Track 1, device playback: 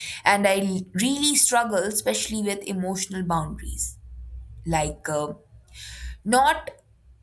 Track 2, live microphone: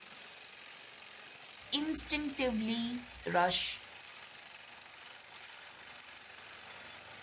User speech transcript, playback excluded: instinctively rush

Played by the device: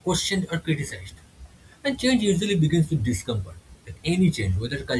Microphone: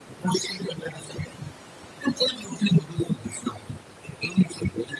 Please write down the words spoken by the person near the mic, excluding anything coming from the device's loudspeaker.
none

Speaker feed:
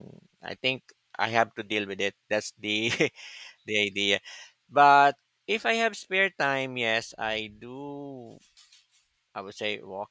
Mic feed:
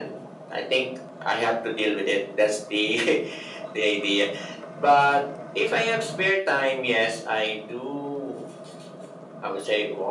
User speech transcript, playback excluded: none

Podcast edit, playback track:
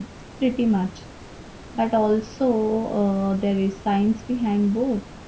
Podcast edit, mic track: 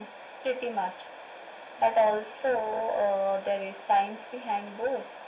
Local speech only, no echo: none

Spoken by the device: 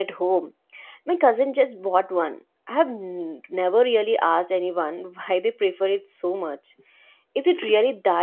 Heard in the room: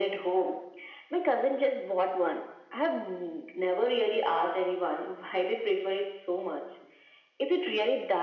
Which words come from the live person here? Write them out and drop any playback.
none

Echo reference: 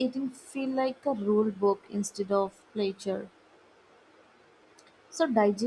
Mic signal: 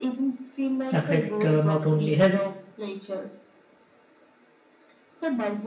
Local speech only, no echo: affect uh, not only health

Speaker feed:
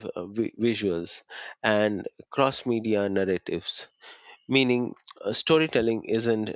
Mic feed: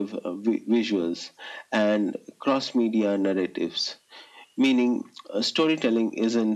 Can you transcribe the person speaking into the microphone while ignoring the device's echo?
none

